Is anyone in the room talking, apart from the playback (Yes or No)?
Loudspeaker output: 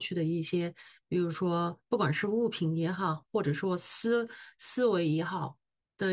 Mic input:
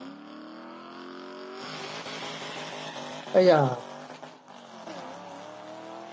Yes